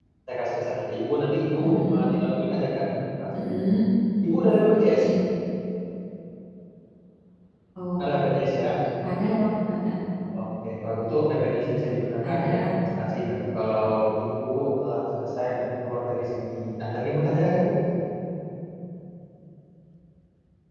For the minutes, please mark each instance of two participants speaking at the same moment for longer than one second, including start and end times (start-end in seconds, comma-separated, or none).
none